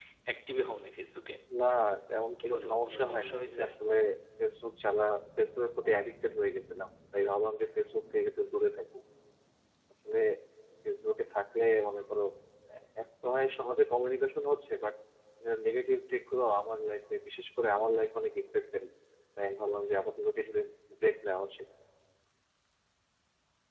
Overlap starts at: 2.4 s

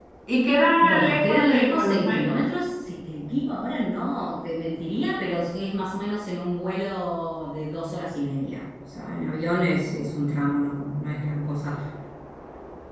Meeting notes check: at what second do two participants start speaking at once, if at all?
0.8 s

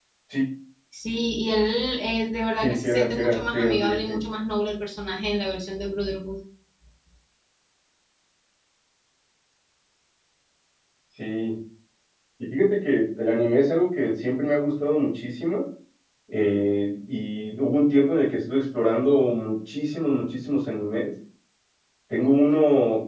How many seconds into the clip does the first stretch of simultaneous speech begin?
2.6 s

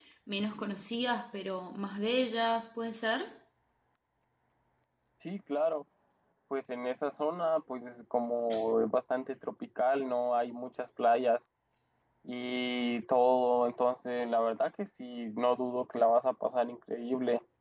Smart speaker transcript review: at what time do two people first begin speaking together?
none

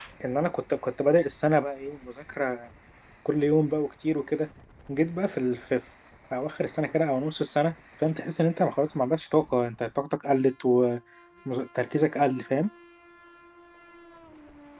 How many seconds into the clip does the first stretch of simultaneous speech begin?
none

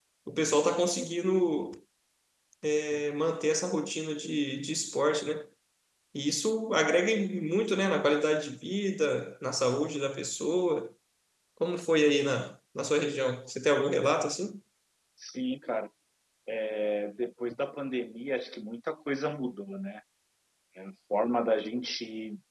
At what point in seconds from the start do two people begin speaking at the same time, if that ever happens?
none

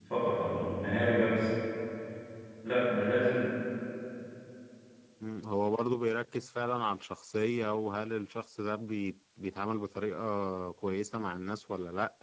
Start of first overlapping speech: none

